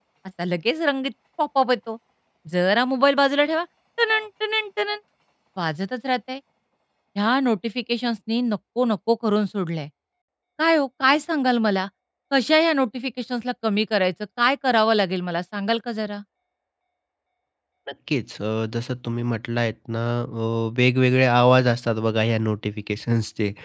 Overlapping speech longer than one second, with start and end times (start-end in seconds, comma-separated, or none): none